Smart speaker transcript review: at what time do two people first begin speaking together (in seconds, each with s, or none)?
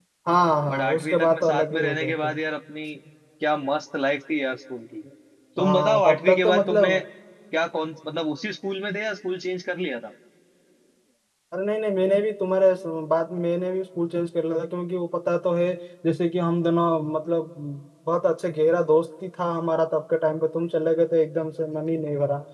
0.7 s